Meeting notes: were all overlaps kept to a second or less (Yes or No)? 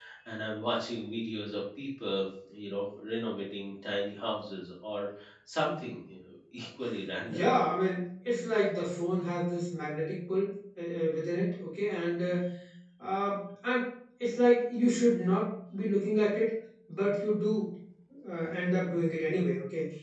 Yes